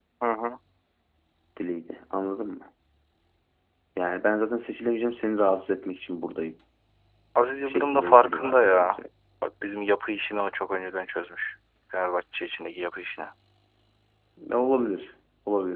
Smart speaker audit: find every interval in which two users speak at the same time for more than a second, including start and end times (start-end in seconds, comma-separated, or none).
7.7-9.0